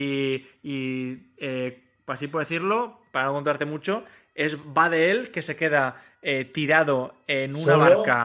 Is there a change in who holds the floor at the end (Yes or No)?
No